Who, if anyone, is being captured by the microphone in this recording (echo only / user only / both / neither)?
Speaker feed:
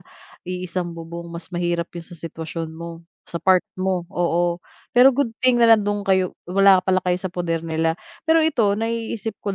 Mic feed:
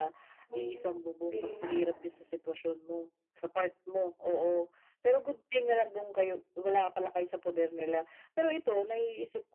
both